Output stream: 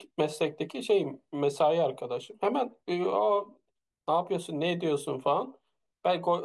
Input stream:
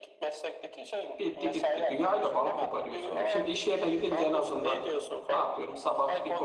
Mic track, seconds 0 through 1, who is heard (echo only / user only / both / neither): echo only